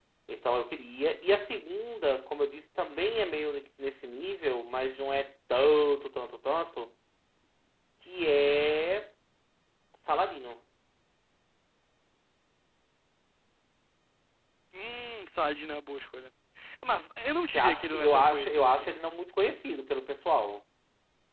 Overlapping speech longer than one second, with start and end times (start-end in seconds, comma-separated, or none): 17.5-18.9